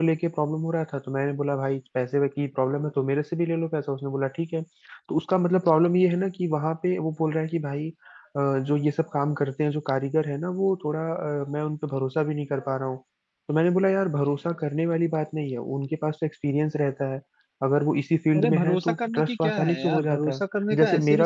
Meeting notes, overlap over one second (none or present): present